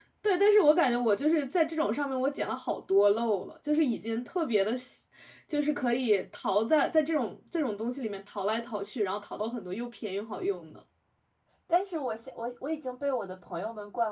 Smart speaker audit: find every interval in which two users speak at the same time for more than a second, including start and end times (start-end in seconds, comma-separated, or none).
none